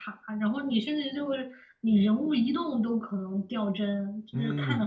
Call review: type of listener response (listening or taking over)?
taking over